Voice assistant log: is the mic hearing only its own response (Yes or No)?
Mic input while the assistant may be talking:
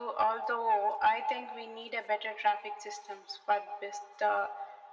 Yes